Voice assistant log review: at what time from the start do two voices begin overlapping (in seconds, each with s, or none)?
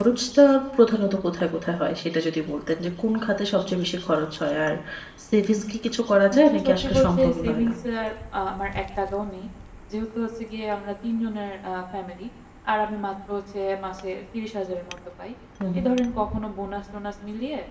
6.3 s